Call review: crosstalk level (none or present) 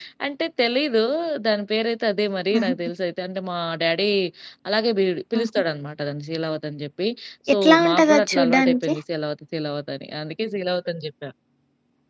present